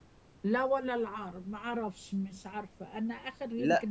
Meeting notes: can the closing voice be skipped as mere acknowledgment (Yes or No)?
No